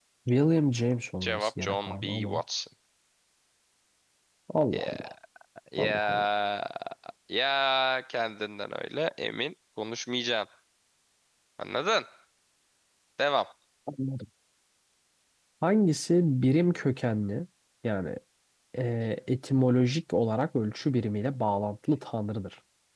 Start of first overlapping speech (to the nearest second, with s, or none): 1 s